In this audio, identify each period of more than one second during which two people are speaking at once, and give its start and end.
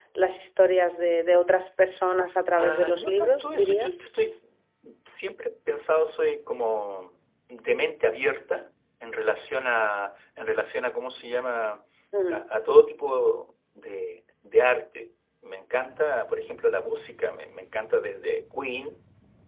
2.6-4.0

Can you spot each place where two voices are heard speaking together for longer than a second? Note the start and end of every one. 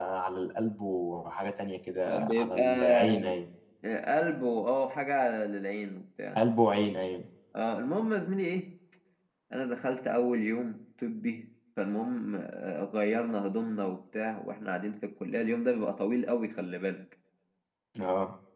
2.1-3.3

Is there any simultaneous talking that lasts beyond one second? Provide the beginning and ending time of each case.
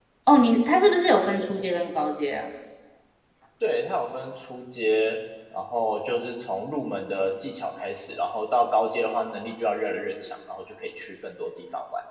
none

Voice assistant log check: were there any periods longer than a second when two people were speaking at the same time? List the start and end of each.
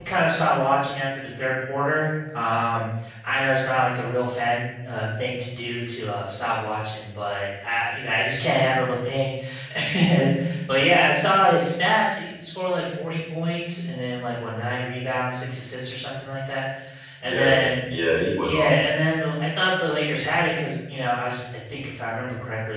none

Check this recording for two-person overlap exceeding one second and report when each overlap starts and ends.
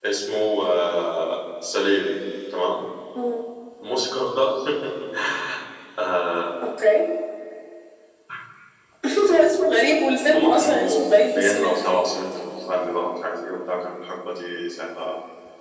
10.3-11.8

